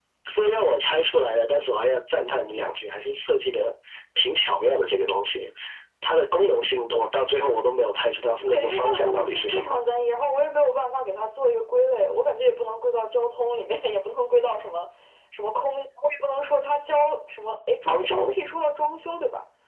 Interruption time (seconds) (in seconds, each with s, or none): 8.4 s